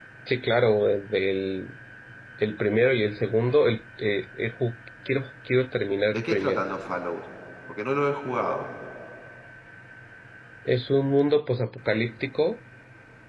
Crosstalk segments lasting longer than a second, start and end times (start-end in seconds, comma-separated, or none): none